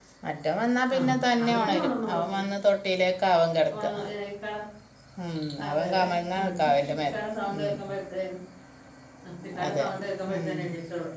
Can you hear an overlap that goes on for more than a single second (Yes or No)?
Yes